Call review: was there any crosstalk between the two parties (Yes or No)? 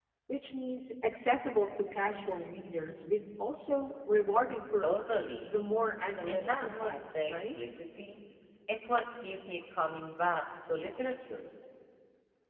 Yes